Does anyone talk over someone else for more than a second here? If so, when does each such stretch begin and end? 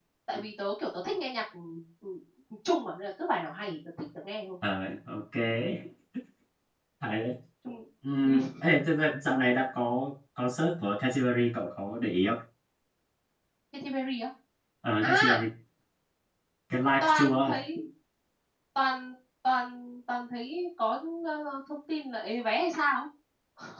none

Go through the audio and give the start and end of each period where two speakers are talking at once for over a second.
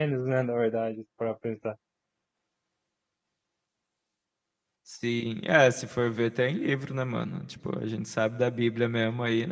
none

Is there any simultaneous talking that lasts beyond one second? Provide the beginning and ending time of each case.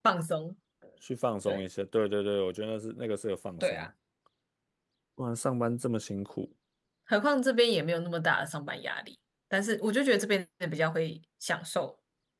none

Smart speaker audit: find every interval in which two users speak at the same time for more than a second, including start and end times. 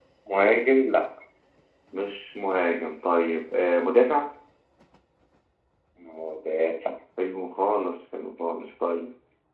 none

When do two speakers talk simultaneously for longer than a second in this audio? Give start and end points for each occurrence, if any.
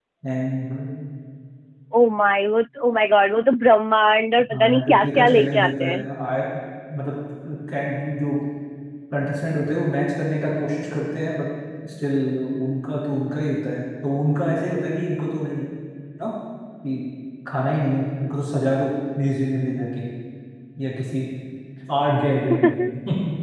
4.5-5.9

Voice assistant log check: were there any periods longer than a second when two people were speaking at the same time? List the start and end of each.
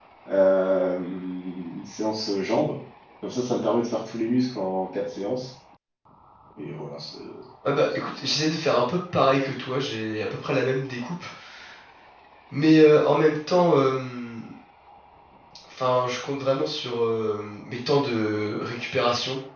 none

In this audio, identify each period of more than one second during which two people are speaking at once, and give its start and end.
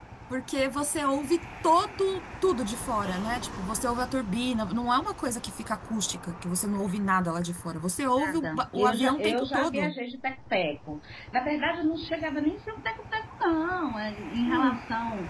8.2-9.9

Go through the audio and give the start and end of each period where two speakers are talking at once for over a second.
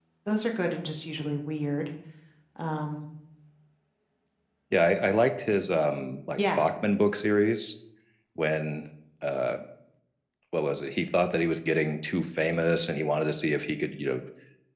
none

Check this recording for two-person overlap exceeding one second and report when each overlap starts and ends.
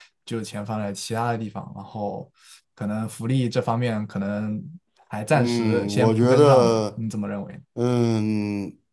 5.3-6.8

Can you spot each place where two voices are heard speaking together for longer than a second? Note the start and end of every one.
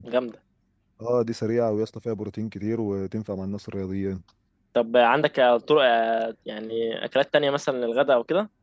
none

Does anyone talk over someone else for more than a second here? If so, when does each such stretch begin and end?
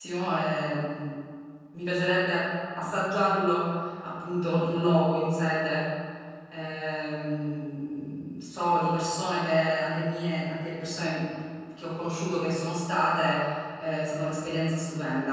none

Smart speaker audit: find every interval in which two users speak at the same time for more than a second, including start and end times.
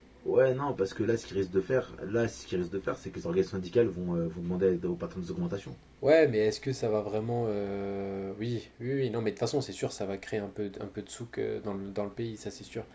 none

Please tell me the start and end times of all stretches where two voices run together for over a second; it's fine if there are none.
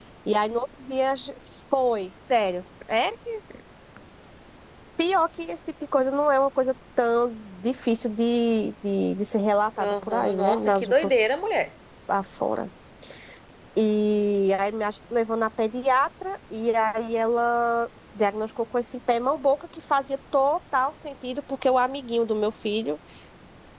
9.8-11.4

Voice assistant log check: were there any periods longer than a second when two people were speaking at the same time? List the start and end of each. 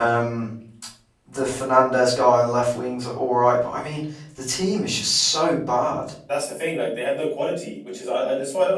none

